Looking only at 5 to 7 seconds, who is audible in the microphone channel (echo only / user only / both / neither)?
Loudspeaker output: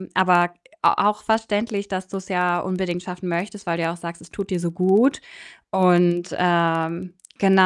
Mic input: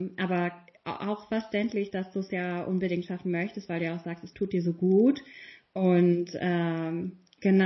echo only